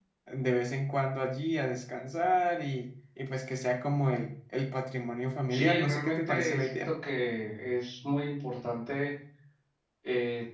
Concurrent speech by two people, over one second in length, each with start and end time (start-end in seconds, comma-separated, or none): 5.5-7.0